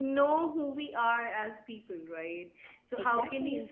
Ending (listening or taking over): listening